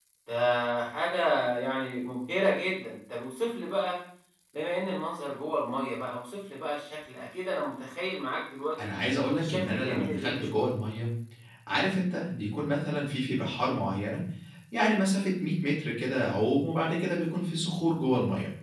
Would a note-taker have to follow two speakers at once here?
Yes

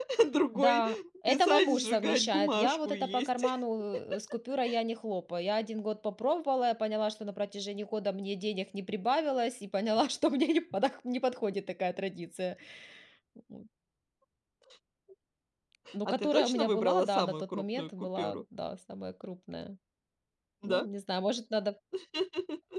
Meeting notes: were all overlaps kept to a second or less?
No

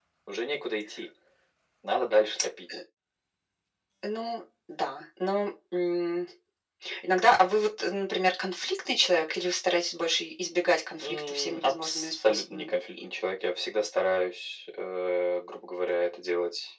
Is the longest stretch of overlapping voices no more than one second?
No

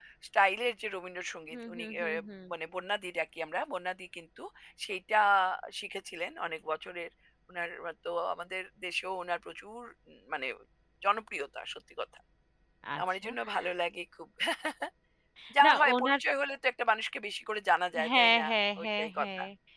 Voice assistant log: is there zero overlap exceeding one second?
No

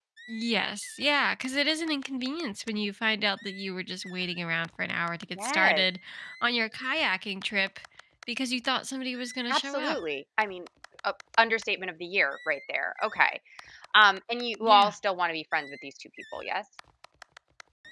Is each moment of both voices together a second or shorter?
Yes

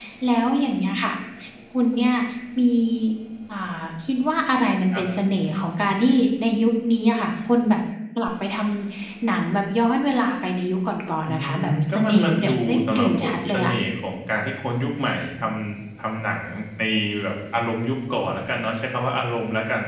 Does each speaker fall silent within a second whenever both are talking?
No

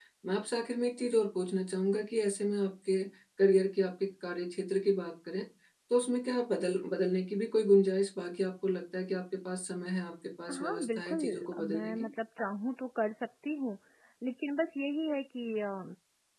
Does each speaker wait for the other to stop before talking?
No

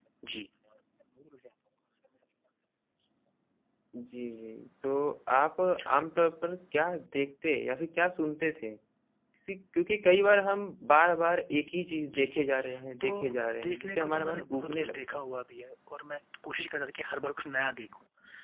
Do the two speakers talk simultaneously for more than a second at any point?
Yes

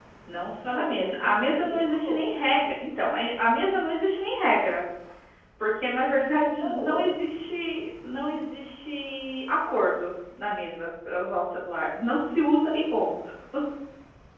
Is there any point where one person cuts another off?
Yes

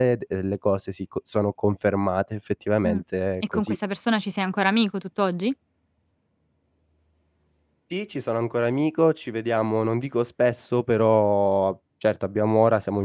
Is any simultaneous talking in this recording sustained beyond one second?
No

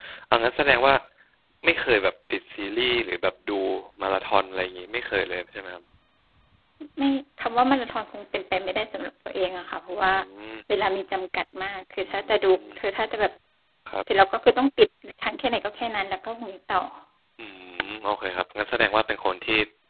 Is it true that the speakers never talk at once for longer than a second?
Yes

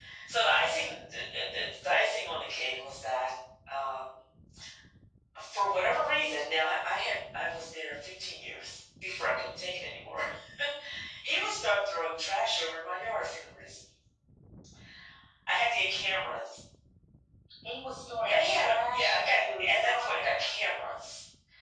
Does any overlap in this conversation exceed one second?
Yes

